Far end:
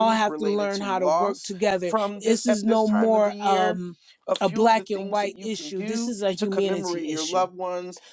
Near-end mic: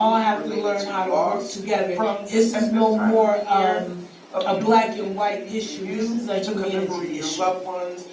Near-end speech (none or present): none